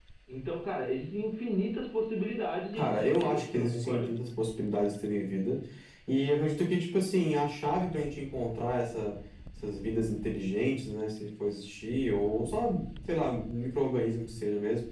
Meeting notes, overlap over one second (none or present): present